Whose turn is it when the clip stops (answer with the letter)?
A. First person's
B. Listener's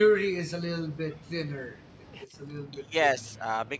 B